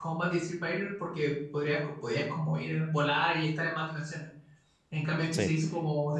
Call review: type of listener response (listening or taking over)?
listening